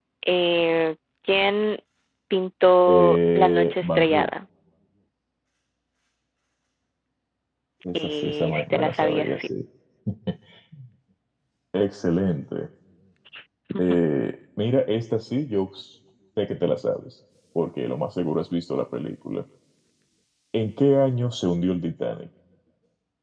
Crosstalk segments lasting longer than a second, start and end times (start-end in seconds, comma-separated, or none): 2.9-4.3, 7.9-9.5